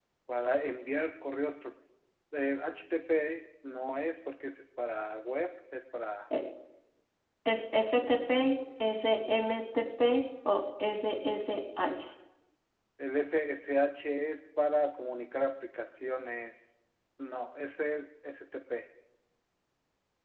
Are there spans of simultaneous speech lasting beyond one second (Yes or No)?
No